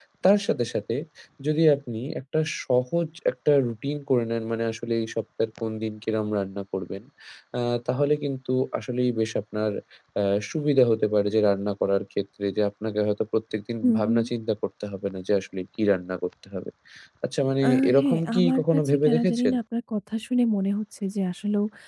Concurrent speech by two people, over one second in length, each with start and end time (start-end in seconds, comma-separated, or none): 17.6-19.6